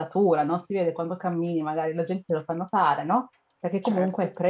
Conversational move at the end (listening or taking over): listening